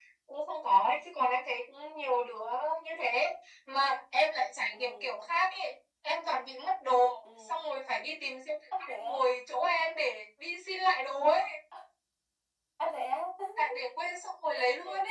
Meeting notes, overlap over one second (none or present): none